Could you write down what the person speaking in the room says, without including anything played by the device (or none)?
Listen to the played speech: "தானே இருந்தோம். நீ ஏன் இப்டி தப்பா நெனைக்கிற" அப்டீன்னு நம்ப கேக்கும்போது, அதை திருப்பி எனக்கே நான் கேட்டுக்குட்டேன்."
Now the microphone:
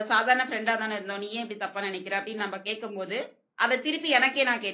none